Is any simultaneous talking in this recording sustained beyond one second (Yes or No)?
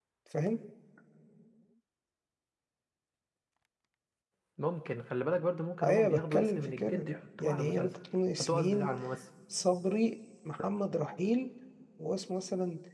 Yes